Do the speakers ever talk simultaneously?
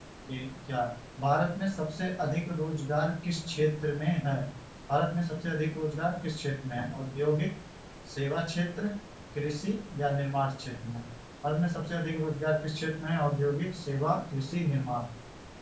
No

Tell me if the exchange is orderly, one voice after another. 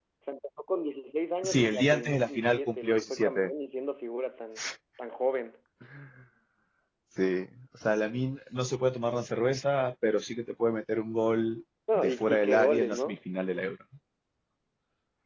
No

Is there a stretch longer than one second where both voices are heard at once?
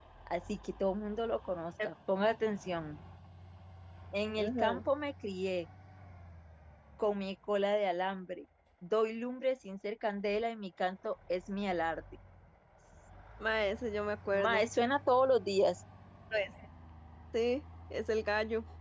No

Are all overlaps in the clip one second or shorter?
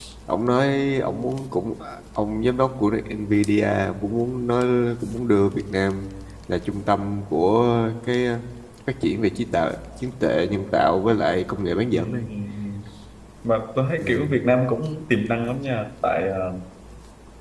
Yes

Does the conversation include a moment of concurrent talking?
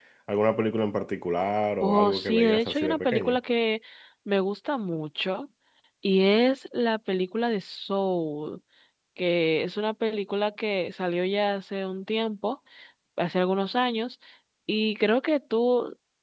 Yes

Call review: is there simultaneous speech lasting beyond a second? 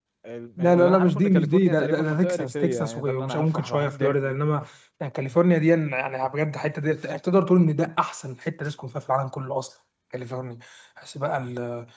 Yes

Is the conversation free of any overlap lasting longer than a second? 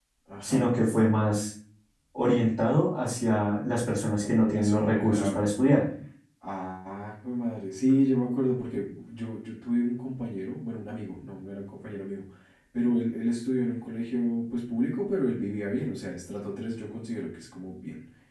No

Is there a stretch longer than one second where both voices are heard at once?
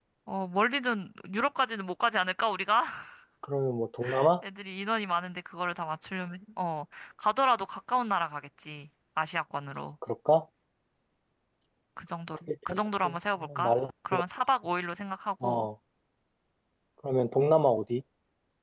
Yes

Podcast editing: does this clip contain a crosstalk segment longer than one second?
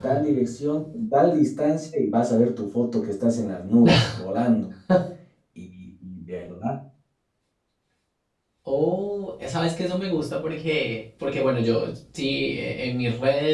No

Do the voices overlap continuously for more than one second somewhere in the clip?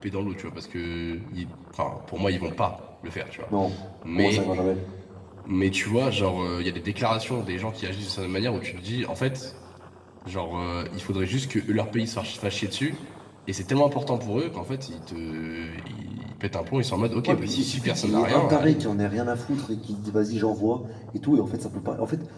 Yes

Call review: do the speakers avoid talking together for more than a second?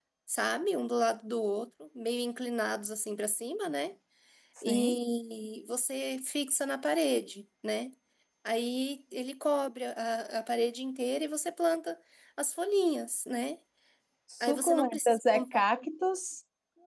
No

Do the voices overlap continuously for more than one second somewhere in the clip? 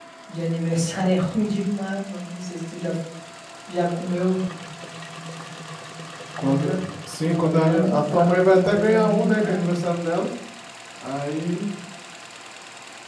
Yes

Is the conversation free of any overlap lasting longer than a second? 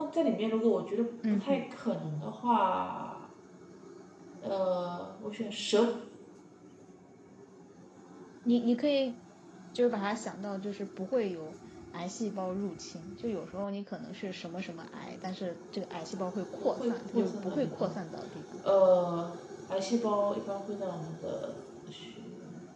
No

